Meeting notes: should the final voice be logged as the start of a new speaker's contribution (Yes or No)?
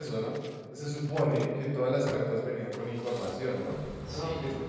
No